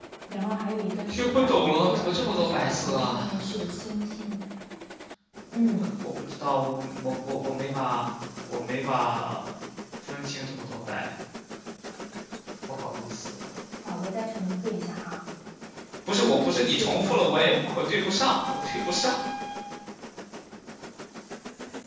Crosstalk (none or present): present